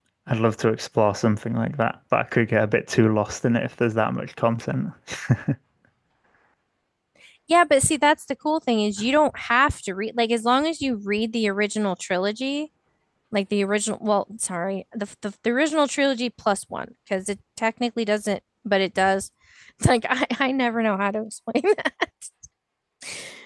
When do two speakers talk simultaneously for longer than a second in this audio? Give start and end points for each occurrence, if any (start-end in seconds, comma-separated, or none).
none